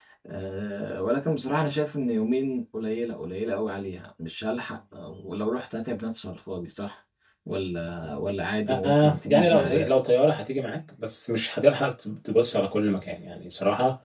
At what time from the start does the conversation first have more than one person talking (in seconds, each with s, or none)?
8.7 s